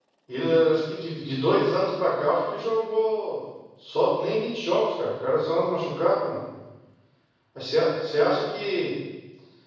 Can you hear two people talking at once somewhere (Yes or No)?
No